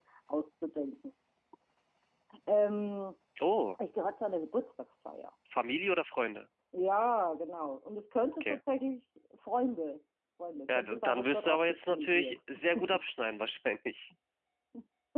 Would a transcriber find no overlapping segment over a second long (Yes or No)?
No